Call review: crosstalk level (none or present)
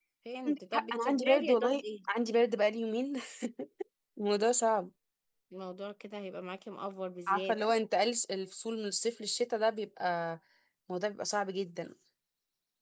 present